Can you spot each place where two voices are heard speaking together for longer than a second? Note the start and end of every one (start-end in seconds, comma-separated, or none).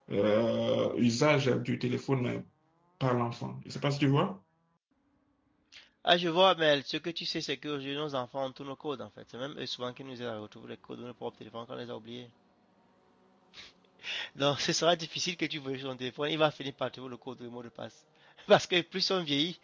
none